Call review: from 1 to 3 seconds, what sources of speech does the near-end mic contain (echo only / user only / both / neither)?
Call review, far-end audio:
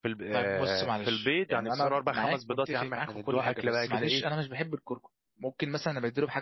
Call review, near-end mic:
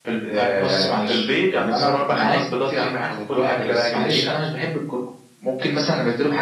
echo only